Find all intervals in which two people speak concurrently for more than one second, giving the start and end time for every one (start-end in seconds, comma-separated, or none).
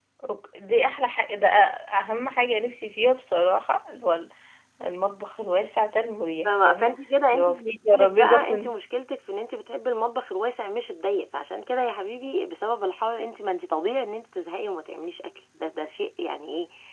7.3-8.7